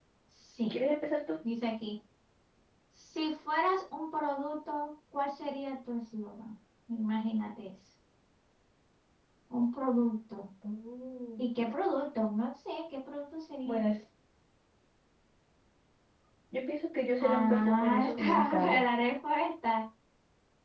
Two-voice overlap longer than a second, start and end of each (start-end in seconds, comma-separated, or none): 17.2-18.8